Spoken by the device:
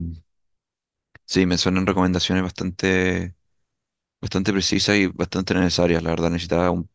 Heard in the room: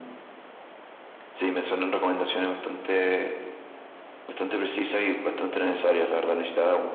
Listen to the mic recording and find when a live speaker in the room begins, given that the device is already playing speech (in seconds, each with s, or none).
none